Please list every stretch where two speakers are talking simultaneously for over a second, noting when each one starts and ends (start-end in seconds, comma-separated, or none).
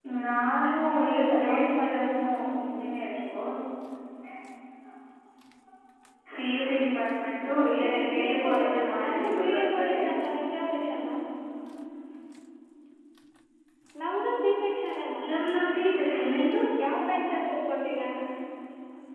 0.9-2.2, 7.6-10.0